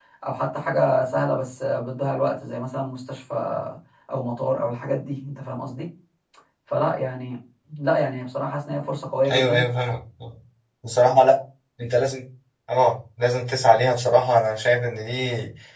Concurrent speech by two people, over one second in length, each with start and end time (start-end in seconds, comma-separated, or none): none